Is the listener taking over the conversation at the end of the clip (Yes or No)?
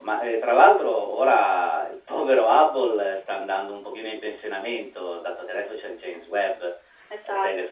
No